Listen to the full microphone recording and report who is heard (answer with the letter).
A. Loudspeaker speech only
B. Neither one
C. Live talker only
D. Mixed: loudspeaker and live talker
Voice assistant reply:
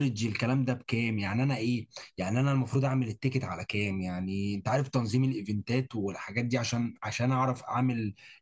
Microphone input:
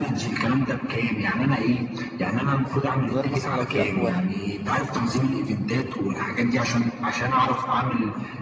D